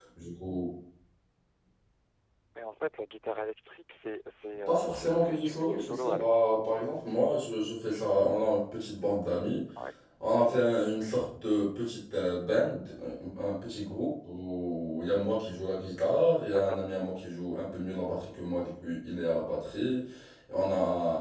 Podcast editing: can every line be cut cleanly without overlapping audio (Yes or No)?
No